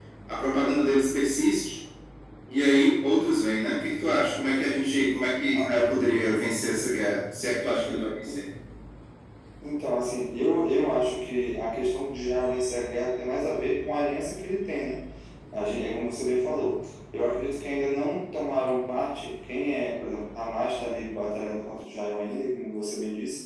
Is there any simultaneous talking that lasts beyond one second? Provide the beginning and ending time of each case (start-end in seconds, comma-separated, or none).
none